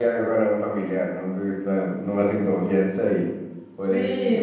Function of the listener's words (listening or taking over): taking over